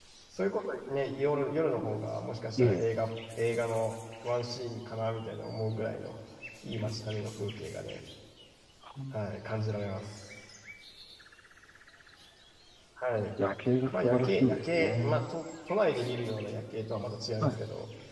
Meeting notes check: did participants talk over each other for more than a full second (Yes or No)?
Yes